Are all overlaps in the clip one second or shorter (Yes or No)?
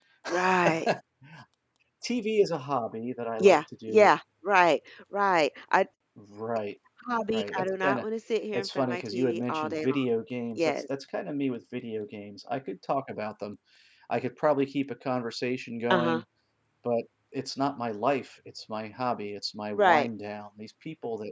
No